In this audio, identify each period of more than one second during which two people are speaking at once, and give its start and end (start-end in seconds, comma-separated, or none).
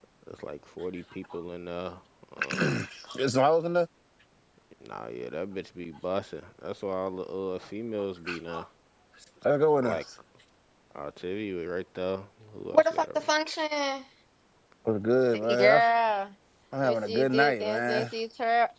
16.8-18.1